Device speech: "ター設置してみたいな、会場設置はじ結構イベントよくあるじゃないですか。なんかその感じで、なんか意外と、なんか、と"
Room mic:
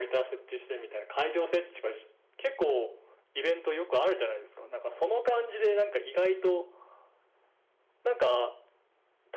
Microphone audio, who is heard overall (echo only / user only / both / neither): echo only